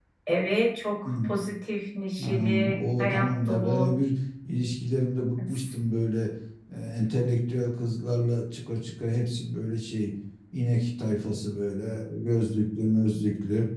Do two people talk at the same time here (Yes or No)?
Yes